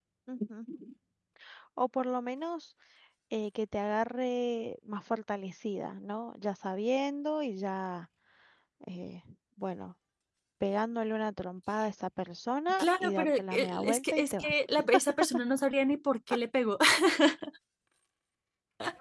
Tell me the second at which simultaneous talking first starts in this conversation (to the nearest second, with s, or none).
13 s